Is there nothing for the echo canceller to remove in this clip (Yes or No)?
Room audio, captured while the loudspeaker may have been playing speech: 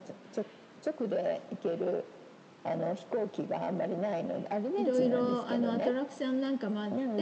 No